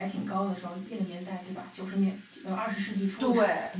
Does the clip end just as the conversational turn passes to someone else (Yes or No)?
Yes